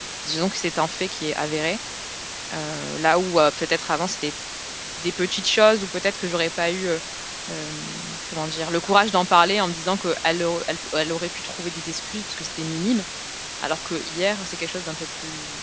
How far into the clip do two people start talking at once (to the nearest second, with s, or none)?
none